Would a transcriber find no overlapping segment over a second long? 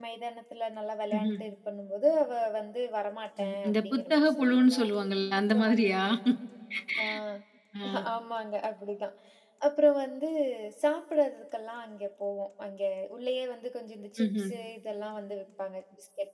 No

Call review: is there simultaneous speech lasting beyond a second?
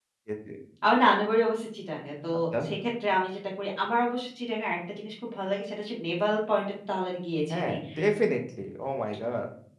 No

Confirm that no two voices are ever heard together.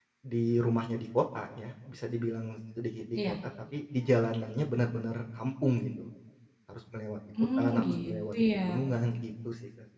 No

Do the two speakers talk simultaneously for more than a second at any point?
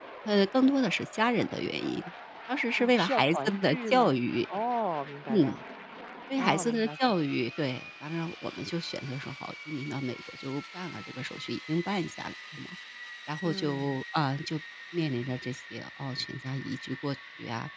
Yes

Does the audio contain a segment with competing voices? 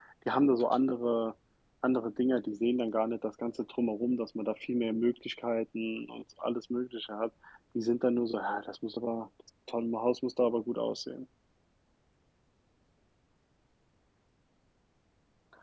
No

